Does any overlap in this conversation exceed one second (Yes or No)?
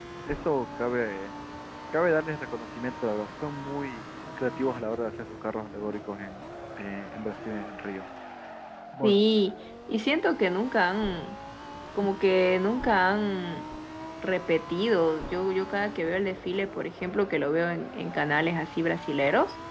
No